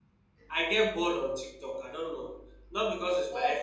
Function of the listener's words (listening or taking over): listening